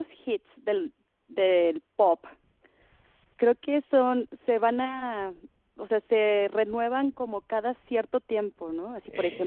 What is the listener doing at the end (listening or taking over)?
listening